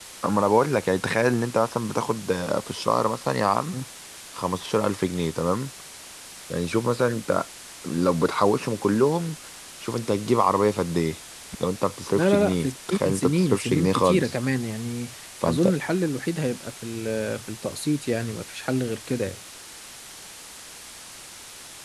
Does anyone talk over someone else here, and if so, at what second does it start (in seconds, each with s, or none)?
12.1 s